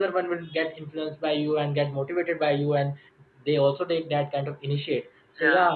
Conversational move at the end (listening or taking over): listening